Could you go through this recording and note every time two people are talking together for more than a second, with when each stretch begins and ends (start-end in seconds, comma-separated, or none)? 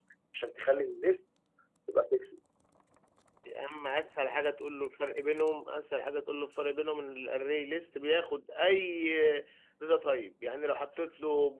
none